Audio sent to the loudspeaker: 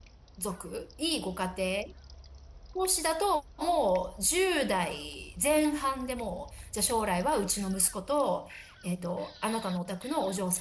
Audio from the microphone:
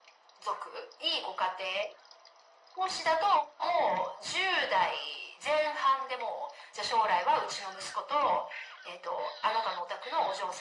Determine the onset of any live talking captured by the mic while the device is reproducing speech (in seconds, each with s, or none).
none